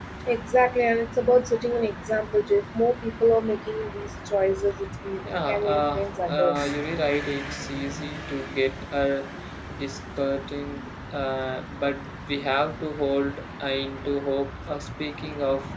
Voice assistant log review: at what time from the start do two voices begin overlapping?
5 s

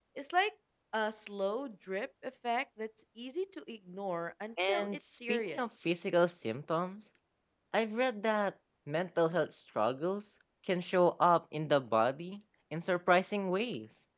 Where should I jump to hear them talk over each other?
5 s

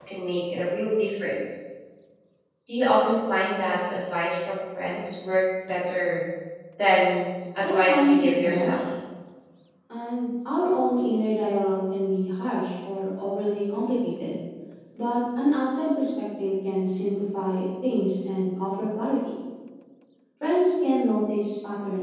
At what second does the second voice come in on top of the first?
8 s

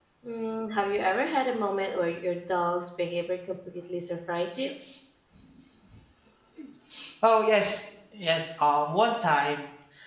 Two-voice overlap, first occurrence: none

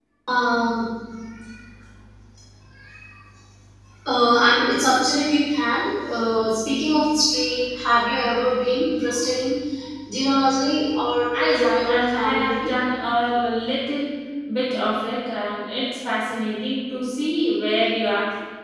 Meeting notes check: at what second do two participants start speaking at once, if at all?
11 s

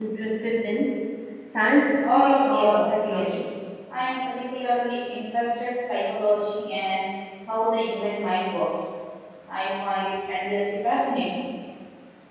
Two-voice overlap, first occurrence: 2 s

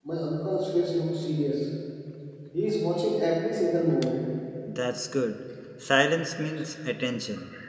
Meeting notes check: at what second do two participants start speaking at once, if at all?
none

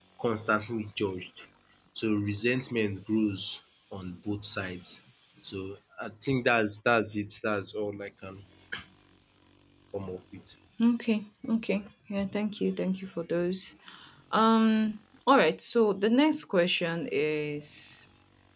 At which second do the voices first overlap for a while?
none

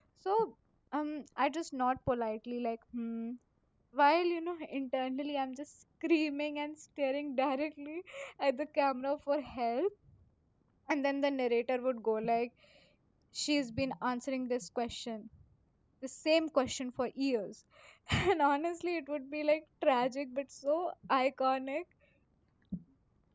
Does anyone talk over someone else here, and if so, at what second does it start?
none

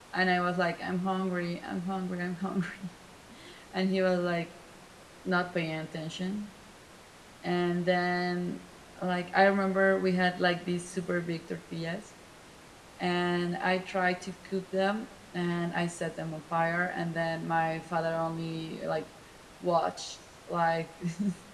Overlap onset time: none

